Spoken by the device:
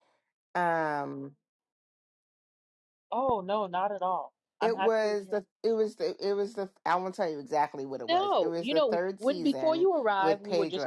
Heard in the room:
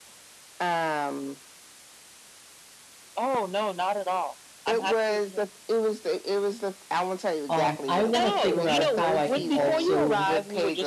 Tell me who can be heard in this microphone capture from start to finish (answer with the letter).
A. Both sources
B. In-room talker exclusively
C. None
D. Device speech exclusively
A